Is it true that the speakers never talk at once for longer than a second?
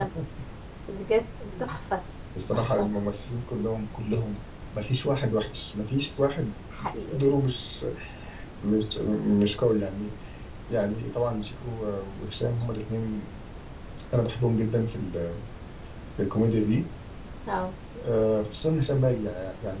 Yes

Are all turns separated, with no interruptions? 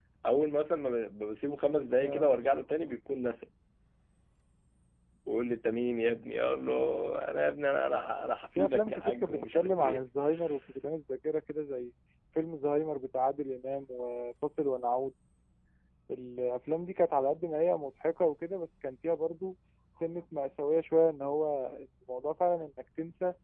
No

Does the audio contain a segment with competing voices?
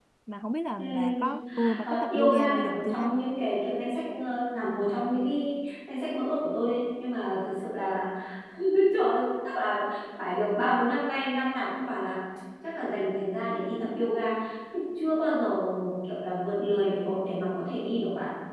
Yes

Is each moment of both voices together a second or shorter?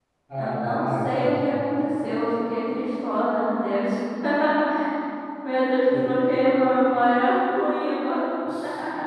No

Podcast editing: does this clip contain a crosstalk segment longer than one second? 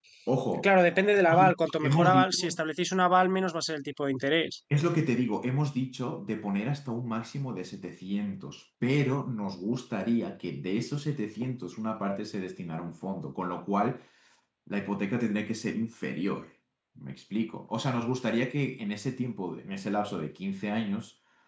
Yes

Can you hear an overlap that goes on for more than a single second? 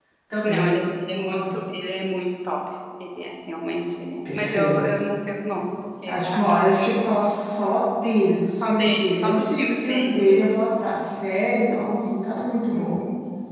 Yes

